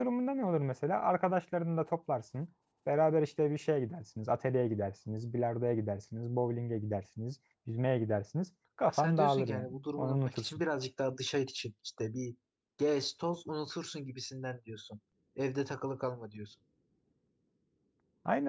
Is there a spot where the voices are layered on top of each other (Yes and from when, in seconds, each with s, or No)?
Yes, from 8.9 s